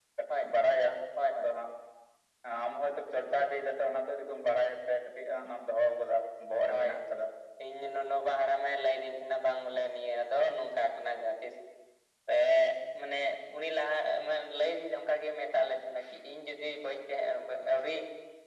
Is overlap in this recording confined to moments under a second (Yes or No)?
Yes